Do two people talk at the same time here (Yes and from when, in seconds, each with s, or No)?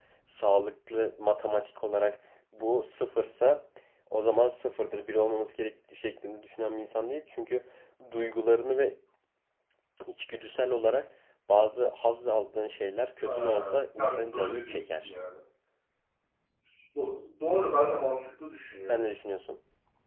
Yes, from 13.2 s